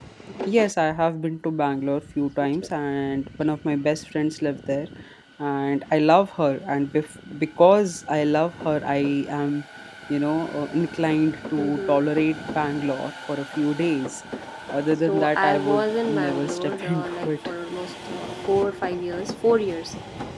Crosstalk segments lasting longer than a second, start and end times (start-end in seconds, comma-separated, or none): 15.1-17.3